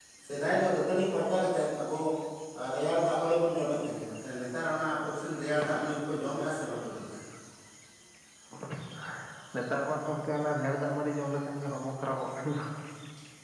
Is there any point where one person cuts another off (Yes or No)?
No